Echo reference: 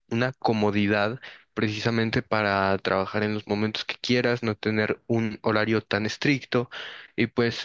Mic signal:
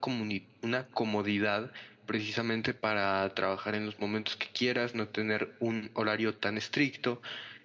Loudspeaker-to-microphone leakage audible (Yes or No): Yes